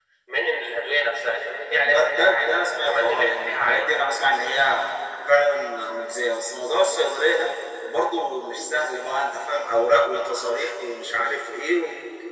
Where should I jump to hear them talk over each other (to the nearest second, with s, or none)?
2 s